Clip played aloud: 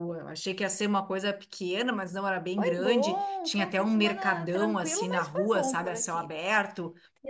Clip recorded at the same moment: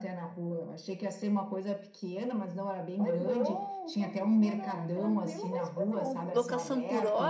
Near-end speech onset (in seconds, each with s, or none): 6.3 s